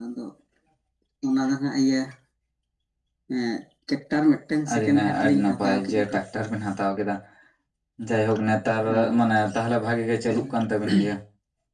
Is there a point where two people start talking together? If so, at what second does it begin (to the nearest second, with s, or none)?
5 s